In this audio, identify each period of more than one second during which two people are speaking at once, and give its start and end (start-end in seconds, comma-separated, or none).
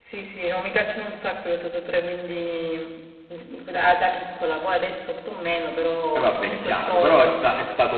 6.2-7.4